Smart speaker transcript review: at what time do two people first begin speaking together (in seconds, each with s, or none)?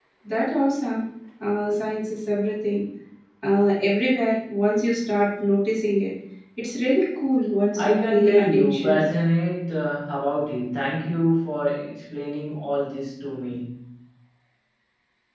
7.8 s